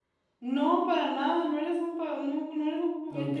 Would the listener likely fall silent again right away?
No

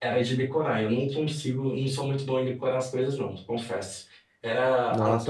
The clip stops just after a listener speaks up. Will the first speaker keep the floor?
No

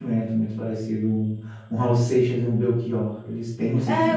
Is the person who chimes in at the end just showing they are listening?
No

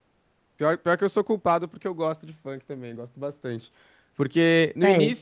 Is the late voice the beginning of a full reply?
No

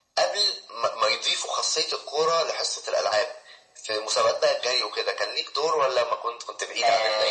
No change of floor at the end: No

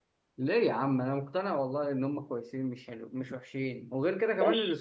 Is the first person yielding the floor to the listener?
Yes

